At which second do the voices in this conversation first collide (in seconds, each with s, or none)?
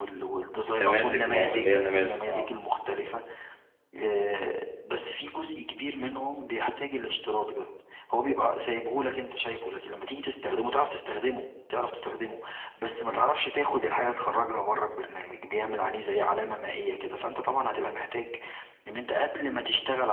0.8 s